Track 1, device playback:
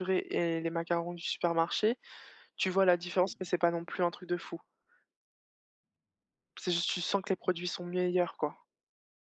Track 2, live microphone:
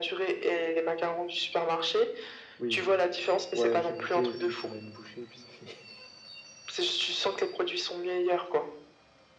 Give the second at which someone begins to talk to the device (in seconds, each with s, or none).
2.6 s